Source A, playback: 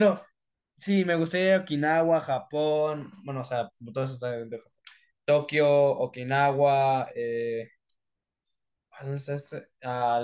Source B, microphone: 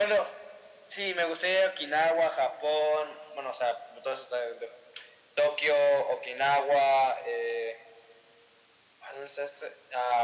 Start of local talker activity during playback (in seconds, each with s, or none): none